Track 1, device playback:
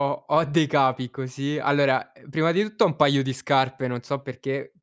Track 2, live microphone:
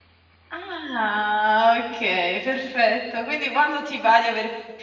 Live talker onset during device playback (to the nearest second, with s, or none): 1 s